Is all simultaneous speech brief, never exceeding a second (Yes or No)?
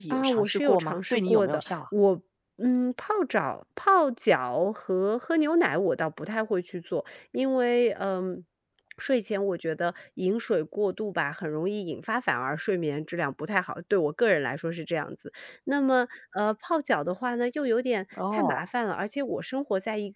No